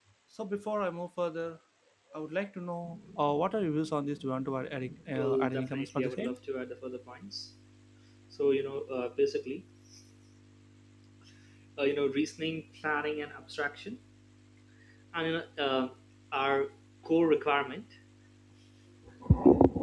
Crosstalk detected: Yes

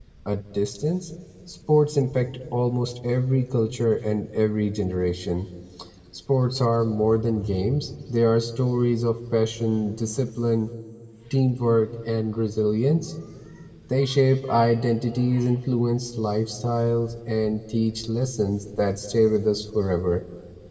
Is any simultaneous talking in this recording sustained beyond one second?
No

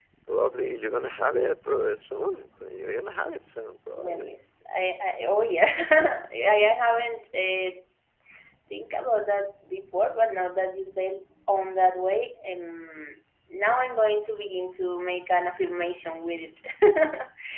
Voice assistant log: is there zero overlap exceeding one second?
Yes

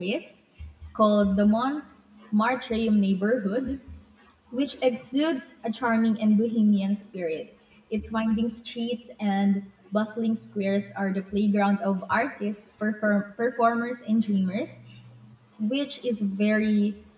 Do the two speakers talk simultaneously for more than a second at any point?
No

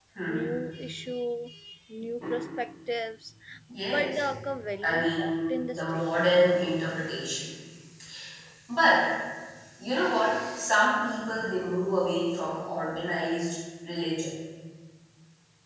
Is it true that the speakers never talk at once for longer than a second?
No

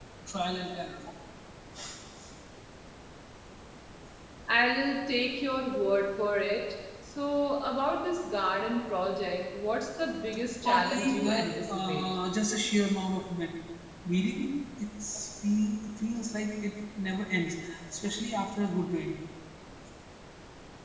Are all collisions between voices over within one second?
No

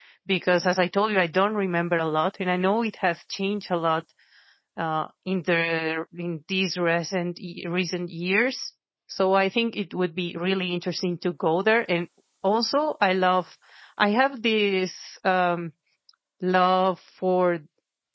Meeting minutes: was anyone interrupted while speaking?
No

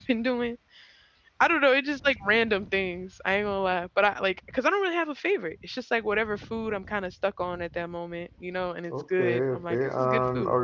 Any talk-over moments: Yes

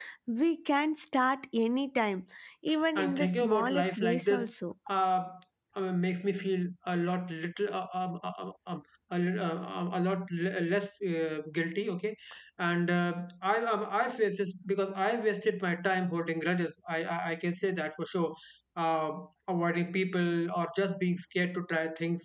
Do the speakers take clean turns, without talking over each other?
No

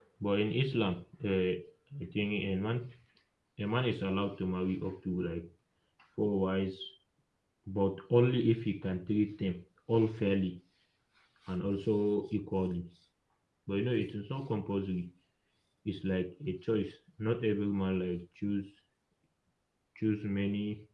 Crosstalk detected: No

